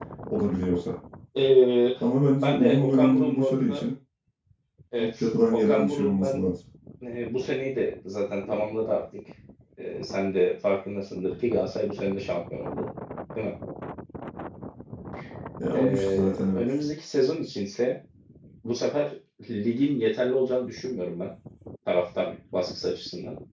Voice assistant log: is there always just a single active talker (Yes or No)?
No